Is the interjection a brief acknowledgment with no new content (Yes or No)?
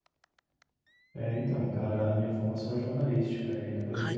Yes